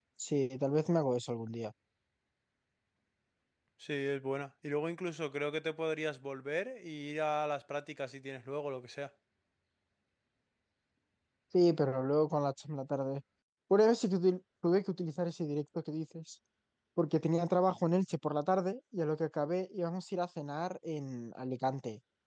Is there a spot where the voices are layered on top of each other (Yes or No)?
No